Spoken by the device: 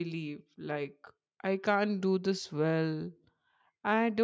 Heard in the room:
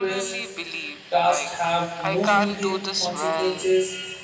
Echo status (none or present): present